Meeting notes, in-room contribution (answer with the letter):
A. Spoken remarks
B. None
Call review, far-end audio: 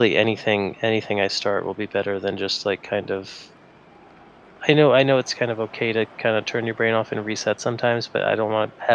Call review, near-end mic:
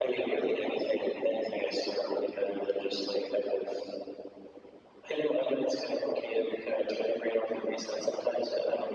B